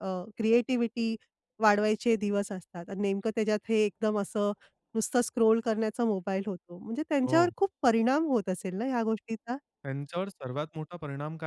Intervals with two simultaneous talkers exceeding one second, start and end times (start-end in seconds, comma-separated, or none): none